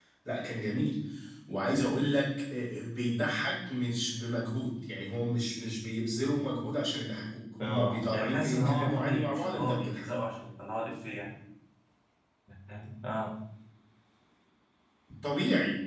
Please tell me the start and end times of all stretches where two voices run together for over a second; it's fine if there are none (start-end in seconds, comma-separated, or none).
7.6-10.0